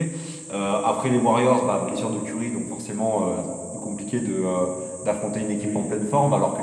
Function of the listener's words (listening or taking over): listening